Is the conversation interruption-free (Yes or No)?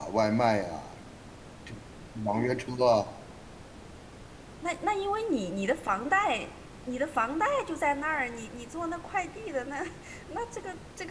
Yes